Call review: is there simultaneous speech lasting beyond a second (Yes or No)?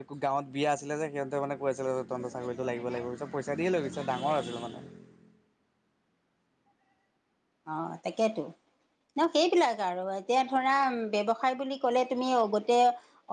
No